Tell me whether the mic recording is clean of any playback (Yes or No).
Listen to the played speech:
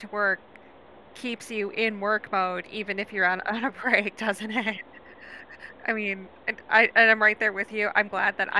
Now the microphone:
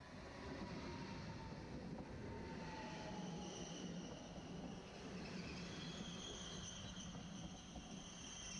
Yes